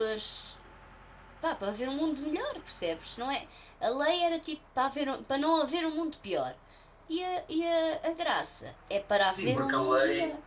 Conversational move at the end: taking over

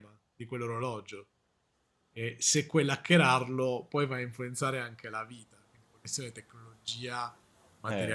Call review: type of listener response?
taking over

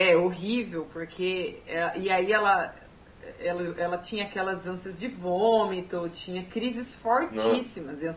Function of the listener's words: listening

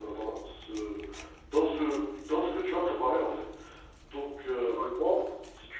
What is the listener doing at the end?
listening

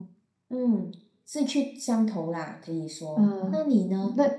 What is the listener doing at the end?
taking over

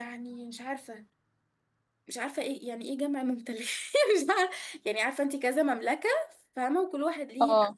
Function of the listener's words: listening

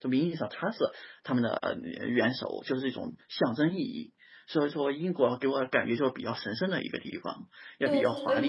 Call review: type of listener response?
taking over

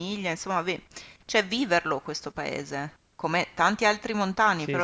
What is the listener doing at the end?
listening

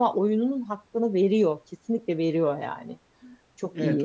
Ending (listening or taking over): taking over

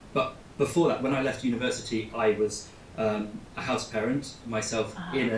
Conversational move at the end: listening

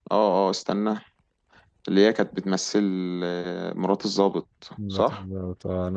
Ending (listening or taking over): taking over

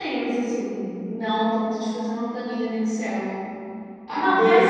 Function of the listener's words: listening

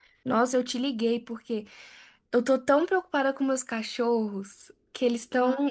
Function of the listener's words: listening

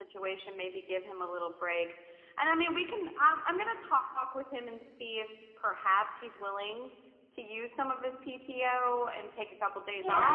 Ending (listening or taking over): taking over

